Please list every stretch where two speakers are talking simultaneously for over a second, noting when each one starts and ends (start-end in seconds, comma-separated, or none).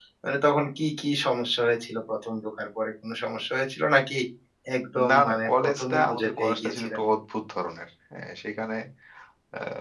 5.1-7.0